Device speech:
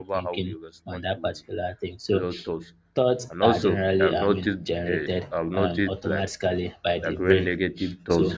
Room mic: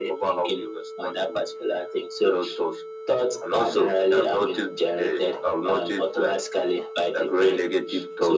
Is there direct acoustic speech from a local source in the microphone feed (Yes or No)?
No